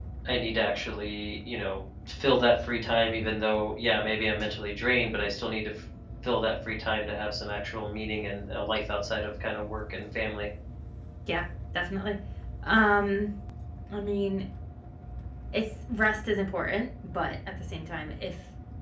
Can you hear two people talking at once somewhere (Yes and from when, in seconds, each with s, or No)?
No